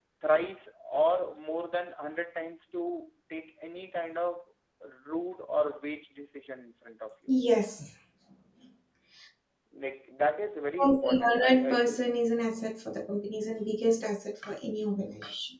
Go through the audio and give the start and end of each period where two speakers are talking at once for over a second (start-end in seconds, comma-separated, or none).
10.8-12.0